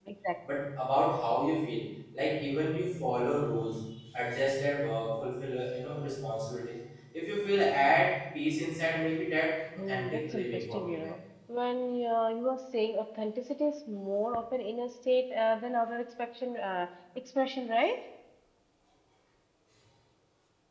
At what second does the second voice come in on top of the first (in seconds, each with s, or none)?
9.8 s